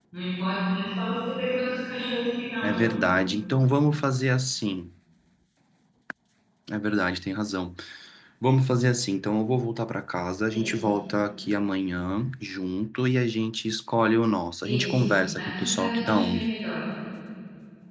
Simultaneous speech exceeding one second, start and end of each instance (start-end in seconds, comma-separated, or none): 14.6-16.5